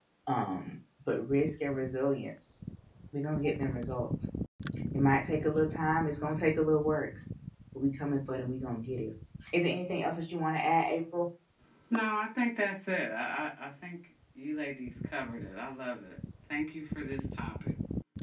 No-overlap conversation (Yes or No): Yes